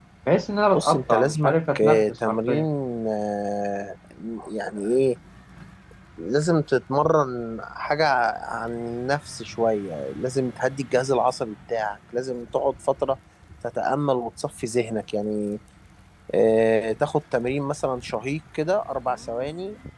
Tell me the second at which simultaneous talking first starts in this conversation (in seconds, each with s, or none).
0.7 s